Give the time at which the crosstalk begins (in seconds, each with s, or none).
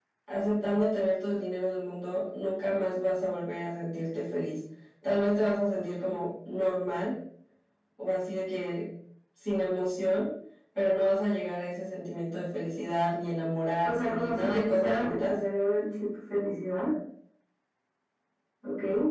13.8 s